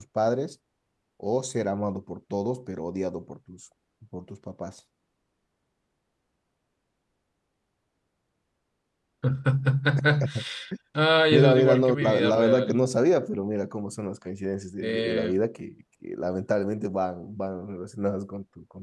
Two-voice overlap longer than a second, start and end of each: 11.3-12.9

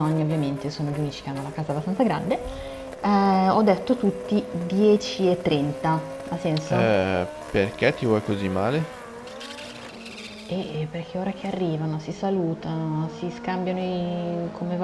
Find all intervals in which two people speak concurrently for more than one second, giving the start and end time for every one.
none

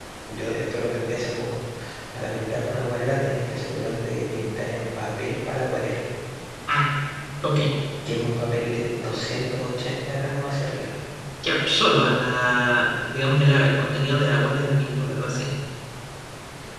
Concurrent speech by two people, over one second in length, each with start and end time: none

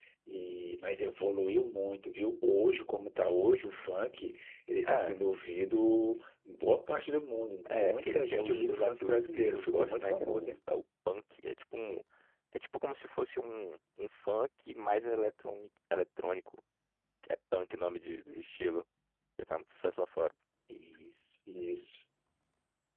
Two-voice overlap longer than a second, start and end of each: 7.7-10.5

